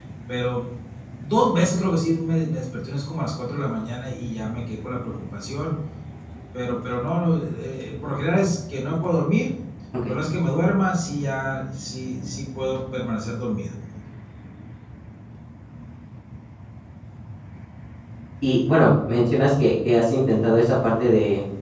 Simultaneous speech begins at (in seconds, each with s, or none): none